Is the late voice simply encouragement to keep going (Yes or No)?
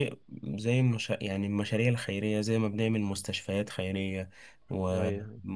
Yes